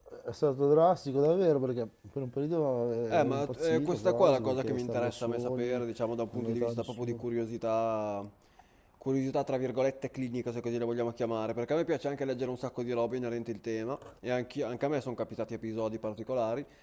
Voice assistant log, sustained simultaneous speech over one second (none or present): present